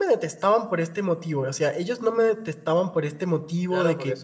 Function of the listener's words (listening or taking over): taking over